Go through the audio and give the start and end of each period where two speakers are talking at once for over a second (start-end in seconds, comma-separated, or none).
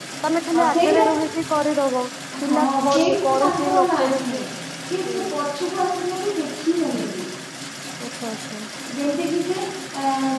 2.4-4.3